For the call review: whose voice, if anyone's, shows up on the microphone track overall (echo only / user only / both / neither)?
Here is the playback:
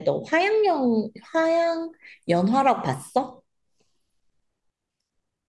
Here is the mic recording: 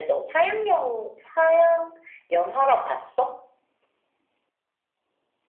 echo only